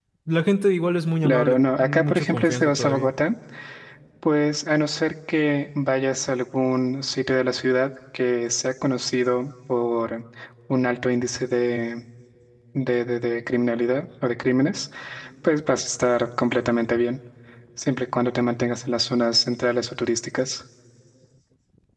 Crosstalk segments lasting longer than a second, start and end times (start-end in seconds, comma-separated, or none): 1.2-3.1